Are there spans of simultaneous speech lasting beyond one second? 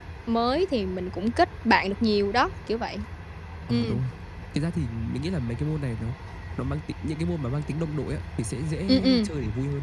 No

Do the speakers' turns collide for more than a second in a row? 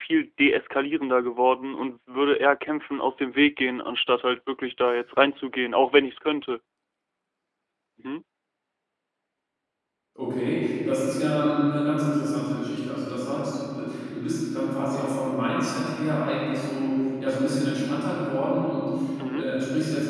No

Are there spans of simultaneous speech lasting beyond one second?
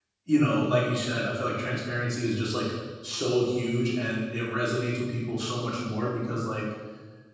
No

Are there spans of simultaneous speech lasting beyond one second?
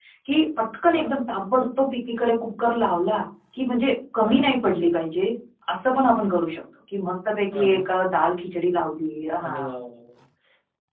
No

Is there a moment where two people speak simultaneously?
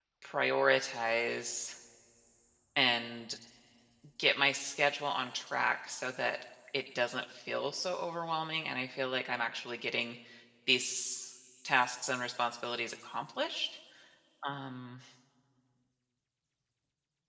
No

